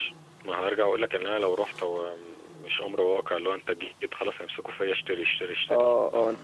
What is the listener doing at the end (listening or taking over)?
taking over